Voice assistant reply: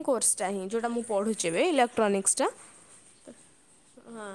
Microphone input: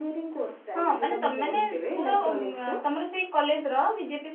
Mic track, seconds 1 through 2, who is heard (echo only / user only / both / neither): both